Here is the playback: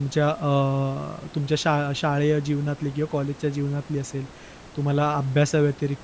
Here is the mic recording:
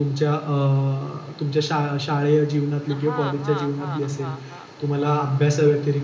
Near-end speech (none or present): present